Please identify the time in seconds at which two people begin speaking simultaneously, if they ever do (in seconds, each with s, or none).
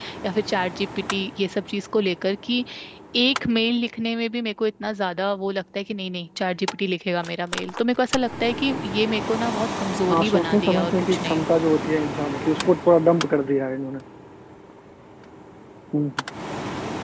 10.1 s